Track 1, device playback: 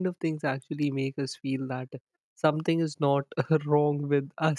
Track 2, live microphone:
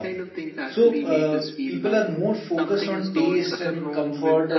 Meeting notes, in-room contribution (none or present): present